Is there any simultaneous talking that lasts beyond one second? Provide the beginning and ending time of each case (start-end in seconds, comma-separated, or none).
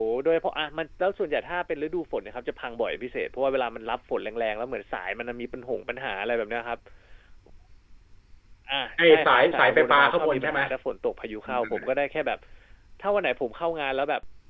9.1-10.6